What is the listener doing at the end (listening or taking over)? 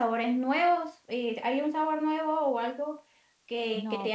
listening